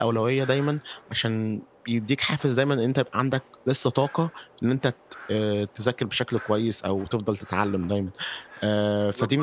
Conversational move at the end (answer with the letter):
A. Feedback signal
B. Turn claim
B